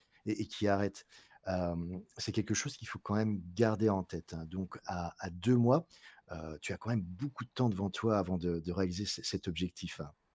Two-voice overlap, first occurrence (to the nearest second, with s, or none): none